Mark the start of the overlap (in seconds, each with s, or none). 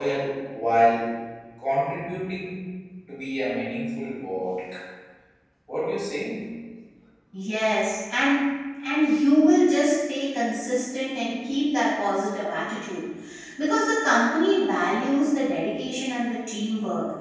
none